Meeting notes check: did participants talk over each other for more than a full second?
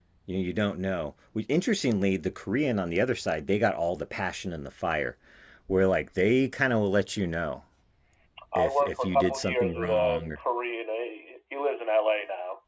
Yes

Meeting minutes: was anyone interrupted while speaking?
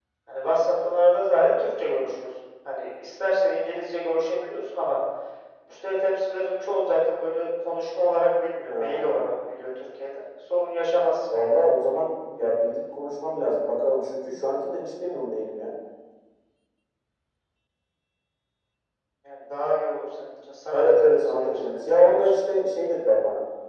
Yes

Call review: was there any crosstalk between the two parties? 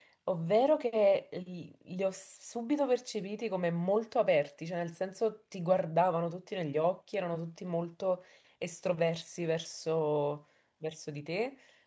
No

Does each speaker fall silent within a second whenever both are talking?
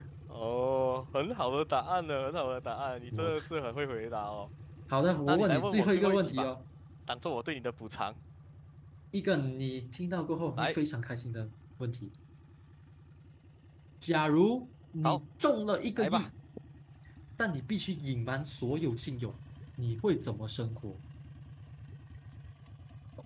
No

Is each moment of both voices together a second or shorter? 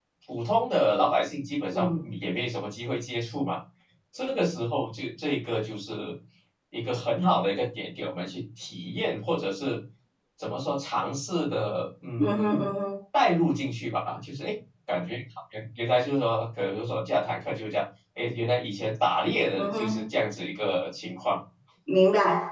Yes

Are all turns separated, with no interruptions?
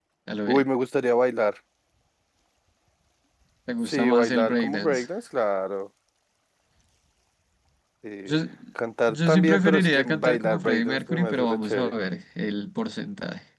No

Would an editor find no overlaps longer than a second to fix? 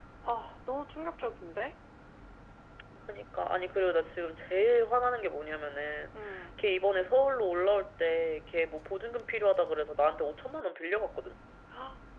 Yes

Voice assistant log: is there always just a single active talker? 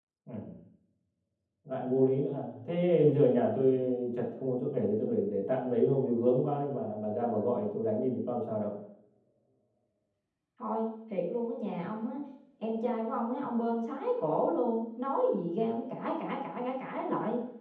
Yes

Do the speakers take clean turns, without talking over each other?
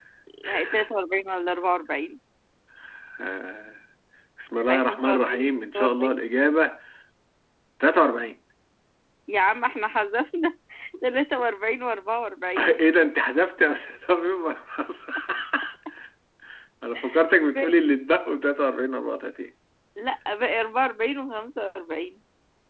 No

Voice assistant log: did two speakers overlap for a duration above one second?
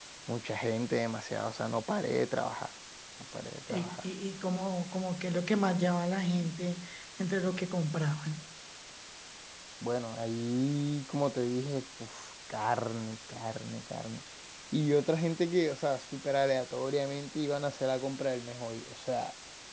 No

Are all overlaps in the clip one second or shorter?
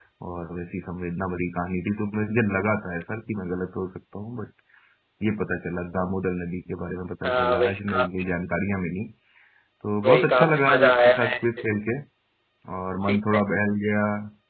No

